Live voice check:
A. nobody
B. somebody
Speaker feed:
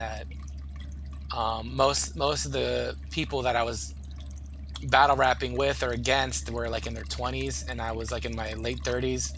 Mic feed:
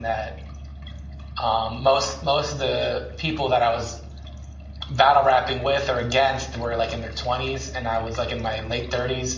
A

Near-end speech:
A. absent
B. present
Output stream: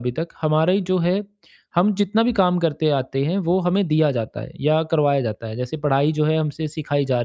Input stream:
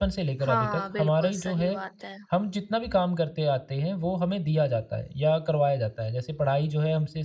B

